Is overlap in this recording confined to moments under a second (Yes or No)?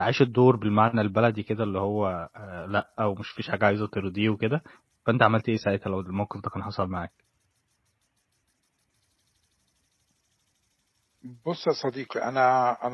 Yes